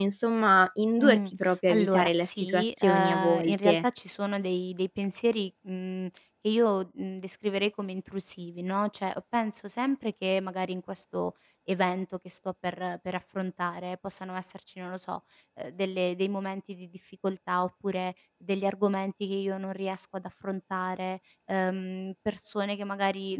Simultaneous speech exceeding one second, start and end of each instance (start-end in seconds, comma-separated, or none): 1.7-3.8